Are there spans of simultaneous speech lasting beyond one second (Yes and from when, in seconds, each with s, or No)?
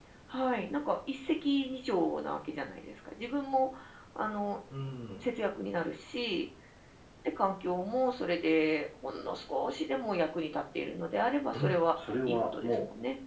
Yes, from 11.5 s